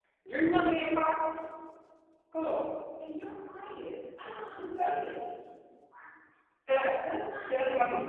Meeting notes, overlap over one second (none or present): none